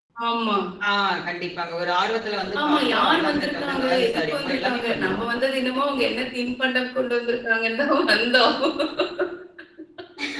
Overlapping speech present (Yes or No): Yes